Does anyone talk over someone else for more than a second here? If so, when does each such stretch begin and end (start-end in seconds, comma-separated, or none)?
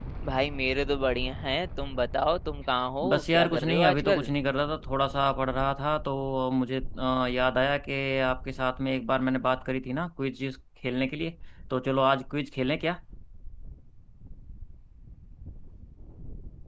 3.1-4.3